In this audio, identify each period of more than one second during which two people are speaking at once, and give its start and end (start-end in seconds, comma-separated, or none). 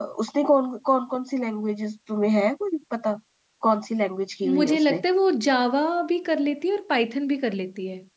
none